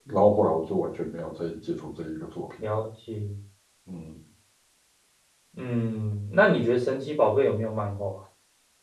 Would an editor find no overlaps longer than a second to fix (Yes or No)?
Yes